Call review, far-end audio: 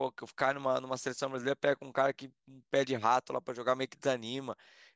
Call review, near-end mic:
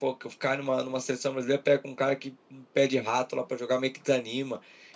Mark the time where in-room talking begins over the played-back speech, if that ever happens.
none

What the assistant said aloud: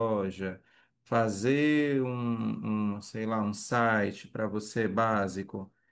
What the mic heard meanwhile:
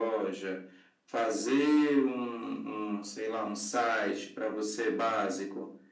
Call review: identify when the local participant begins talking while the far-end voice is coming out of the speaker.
none

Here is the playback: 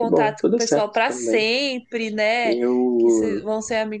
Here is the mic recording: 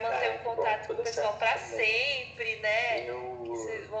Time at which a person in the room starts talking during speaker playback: none

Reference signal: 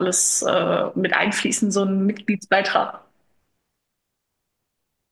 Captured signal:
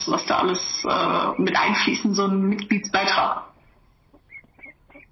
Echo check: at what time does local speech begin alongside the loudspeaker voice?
none

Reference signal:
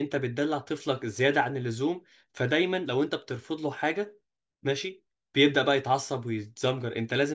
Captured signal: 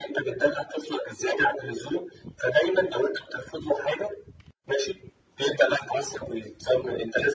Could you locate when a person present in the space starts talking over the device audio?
none

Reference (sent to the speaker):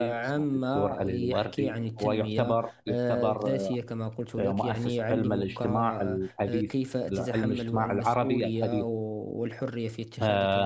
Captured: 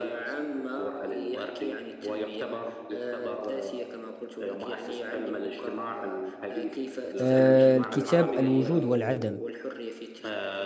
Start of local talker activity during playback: 7.2 s

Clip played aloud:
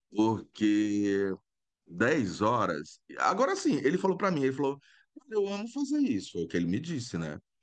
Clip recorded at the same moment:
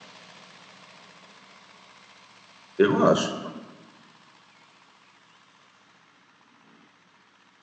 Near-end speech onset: 2.8 s

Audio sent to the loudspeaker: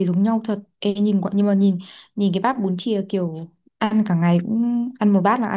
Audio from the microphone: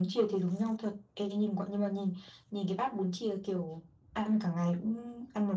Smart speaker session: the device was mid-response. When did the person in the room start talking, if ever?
none

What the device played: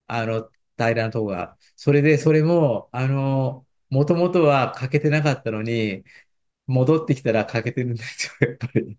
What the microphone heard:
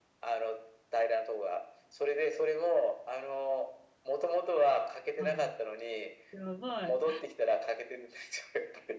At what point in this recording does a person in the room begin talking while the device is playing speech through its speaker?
5.2 s

